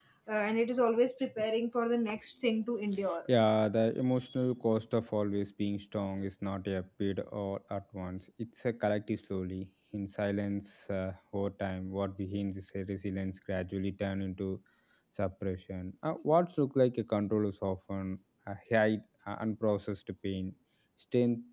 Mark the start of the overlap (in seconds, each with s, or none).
none